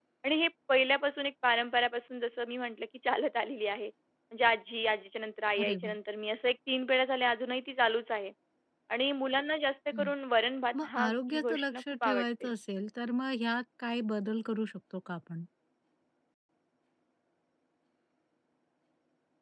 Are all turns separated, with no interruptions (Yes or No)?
No